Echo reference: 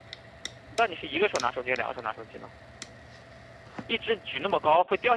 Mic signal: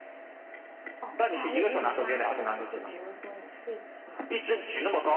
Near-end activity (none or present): present